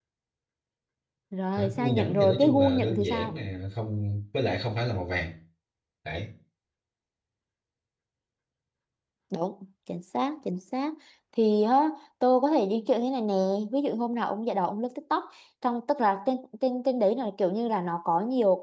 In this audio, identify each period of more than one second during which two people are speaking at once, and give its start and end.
1.6-3.3

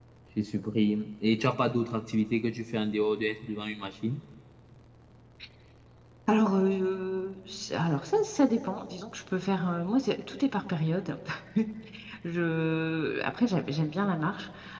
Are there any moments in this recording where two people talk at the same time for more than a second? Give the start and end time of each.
none

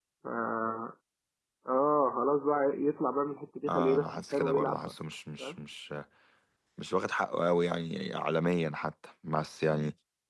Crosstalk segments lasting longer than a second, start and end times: 3.7-4.9

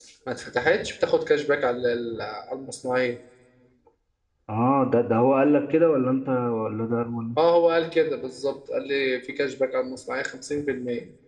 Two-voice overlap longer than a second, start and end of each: none

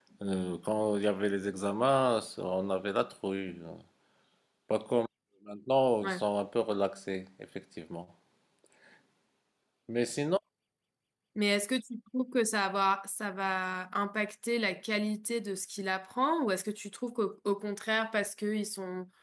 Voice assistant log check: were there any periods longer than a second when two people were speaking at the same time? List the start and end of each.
none

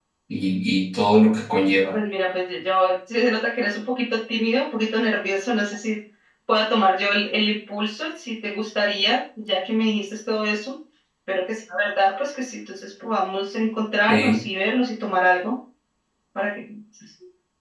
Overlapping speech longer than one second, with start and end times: none

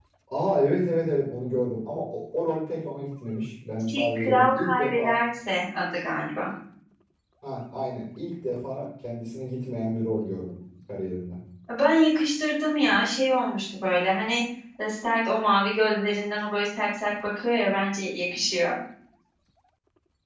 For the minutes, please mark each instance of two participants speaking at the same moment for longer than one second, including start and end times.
3.9-5.1

